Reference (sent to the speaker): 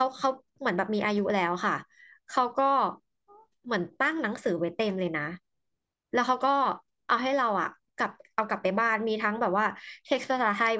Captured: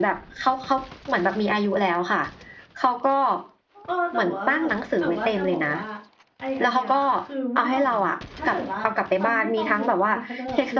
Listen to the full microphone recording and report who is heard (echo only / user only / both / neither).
both